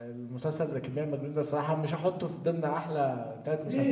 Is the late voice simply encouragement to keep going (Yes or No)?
No